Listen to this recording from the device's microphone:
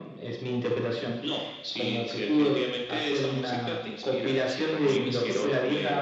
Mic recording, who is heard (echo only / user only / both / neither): both